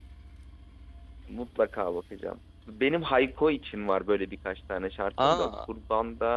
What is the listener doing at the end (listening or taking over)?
listening